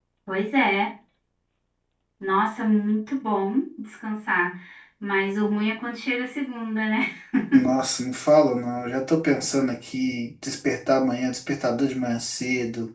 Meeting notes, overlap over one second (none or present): none